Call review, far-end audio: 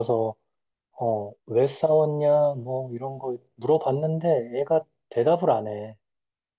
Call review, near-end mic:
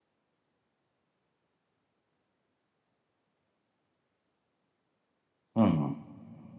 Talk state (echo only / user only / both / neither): user only